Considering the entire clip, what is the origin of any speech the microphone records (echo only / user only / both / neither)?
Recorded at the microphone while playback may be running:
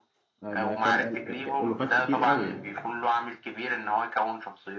both